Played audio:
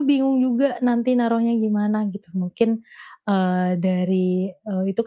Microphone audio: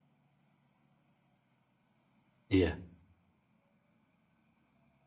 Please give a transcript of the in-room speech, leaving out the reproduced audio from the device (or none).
Iya